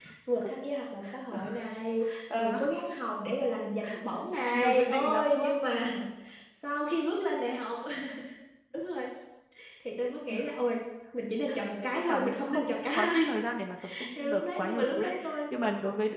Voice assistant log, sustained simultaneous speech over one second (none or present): present